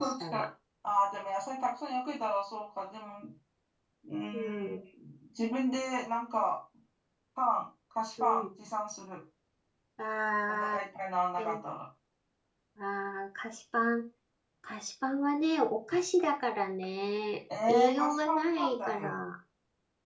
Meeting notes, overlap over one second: present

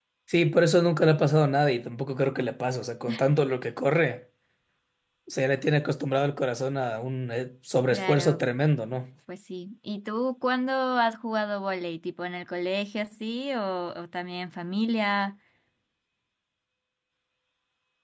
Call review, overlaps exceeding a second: none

